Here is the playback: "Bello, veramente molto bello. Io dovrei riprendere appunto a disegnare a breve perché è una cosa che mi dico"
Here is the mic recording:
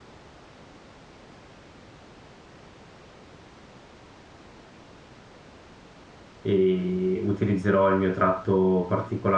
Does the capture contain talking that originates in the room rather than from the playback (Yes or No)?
Yes